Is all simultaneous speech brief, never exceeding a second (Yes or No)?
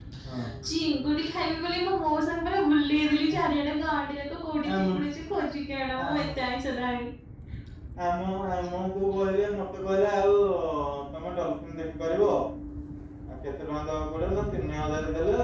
Yes